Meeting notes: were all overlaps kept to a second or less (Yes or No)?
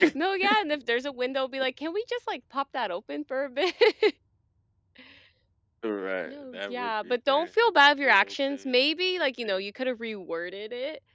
No